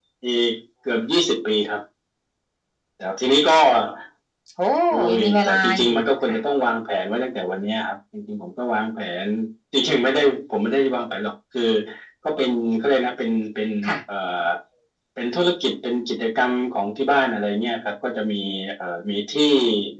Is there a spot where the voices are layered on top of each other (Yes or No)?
Yes